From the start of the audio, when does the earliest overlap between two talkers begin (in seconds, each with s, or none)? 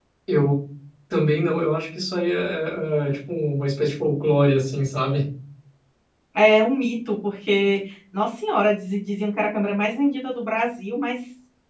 none